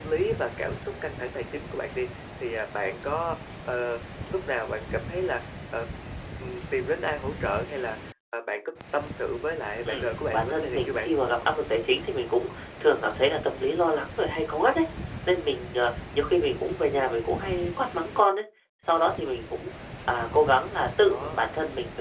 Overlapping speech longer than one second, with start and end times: 9.9-11.2

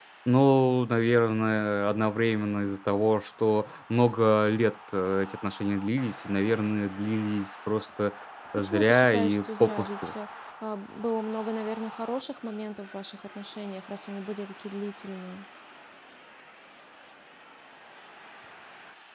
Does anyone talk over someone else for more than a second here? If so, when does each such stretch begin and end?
8.6-10.1

